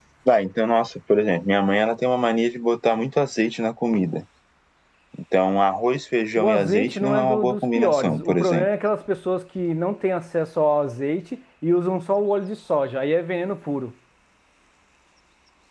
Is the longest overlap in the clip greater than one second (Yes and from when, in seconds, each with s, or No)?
Yes, from 6.4 s